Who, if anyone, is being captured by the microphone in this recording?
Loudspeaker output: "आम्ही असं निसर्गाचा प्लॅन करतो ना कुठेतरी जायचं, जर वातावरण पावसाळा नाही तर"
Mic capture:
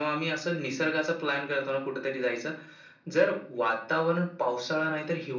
echo only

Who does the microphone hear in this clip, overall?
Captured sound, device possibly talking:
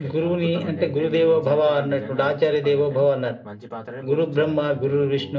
both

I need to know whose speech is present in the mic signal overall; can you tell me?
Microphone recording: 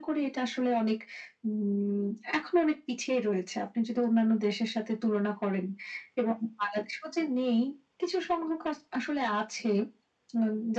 echo only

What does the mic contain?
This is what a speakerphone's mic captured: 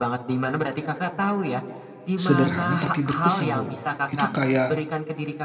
both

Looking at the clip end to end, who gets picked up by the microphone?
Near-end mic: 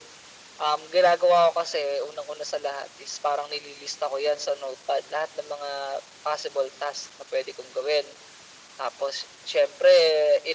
echo only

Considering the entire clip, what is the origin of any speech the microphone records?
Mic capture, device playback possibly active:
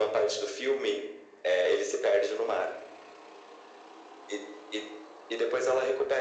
echo only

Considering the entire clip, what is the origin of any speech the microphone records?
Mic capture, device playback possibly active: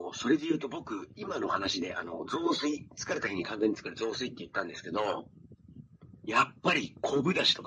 echo only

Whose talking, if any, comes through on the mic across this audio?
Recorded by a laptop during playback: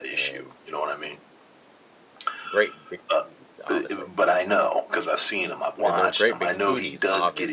both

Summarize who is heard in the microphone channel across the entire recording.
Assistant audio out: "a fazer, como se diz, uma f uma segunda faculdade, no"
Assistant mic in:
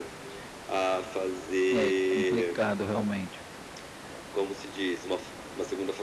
both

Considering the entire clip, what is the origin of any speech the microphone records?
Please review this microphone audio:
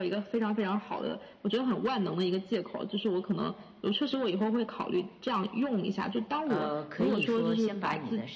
both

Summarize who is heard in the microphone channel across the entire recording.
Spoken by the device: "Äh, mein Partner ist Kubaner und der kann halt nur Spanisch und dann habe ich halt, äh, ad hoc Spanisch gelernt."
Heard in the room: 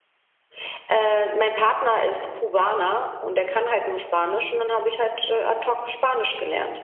echo only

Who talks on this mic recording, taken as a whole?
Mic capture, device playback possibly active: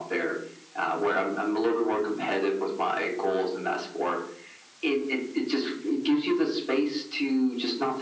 echo only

